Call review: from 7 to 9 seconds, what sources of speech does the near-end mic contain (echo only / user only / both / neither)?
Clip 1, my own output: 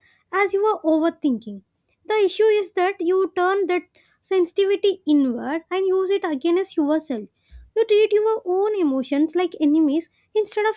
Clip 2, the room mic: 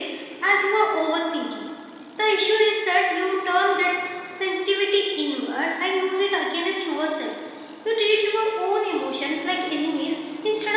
echo only